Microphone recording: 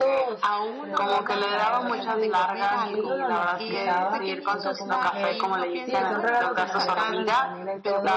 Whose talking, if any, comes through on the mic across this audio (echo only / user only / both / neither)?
both